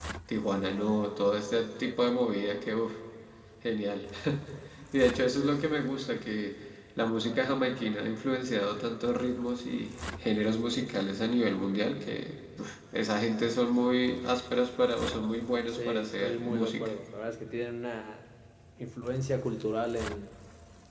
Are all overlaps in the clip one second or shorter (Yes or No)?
No